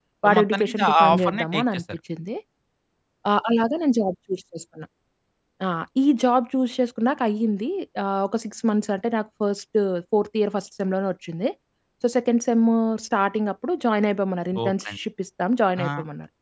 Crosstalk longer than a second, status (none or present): present